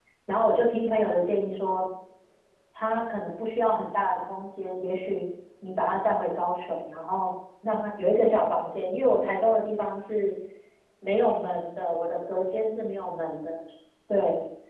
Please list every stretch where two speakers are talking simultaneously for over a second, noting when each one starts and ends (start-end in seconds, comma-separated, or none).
none